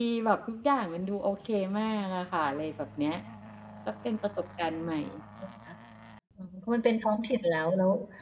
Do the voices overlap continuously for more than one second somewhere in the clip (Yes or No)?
No